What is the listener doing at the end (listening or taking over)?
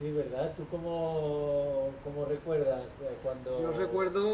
taking over